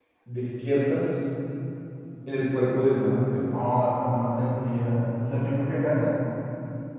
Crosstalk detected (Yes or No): No